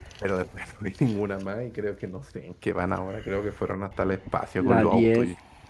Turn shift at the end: Yes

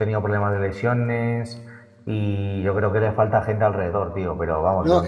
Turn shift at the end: Yes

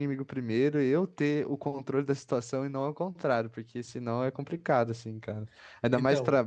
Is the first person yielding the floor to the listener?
Yes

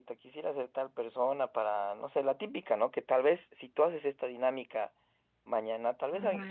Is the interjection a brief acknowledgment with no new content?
Yes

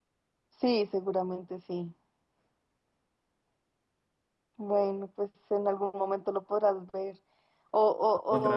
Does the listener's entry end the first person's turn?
No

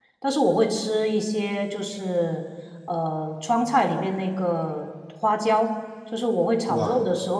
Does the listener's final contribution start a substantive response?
No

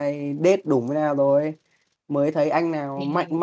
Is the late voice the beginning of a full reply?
No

